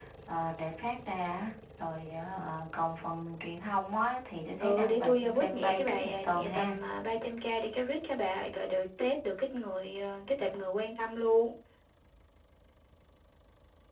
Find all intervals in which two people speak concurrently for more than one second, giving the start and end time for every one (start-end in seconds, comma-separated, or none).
4.6-6.8